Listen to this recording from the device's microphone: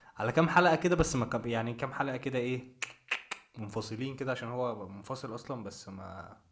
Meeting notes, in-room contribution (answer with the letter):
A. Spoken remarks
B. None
A